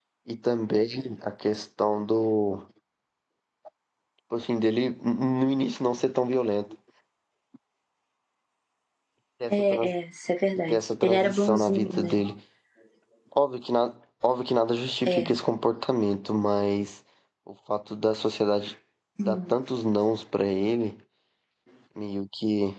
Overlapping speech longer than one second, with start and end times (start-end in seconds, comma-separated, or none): 10.7-12.2